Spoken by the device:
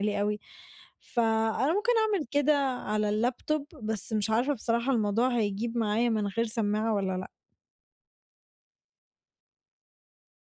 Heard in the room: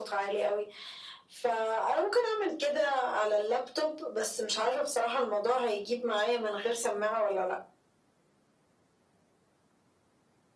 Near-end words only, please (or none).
none